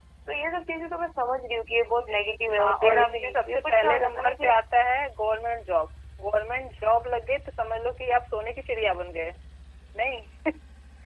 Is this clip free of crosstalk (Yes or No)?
No